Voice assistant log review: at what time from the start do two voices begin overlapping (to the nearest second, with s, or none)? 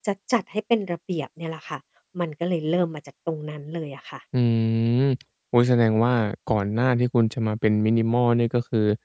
none